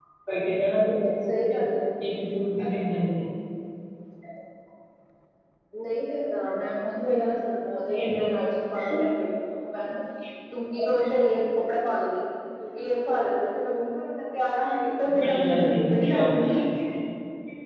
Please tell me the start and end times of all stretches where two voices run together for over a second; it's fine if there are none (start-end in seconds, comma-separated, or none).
15.2-16.5